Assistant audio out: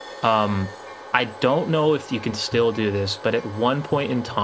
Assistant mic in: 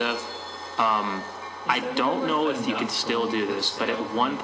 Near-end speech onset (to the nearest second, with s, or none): 2 s